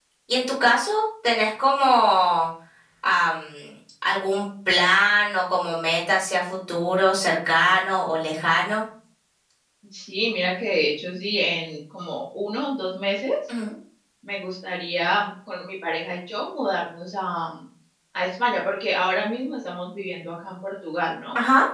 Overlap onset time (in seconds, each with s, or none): none